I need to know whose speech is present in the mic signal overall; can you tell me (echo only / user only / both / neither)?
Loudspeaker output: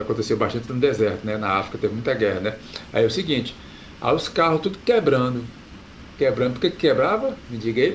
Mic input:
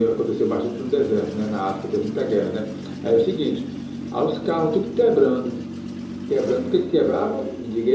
echo only